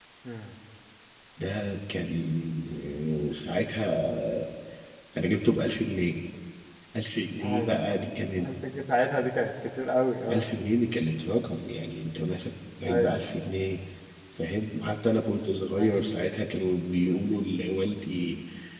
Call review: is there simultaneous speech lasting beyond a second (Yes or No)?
No